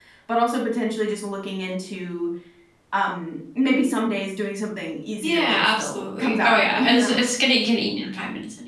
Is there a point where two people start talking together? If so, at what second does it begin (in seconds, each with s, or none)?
5.2 s